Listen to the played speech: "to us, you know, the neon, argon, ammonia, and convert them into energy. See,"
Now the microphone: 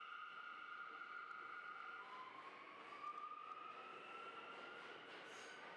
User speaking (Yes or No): No